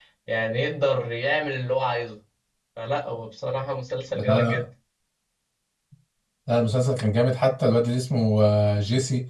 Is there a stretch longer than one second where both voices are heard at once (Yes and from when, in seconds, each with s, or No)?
No